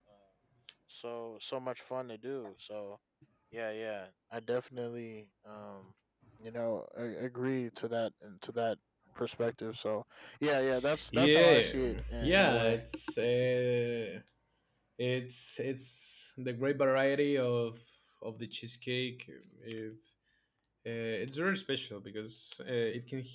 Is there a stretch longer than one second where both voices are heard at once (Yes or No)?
Yes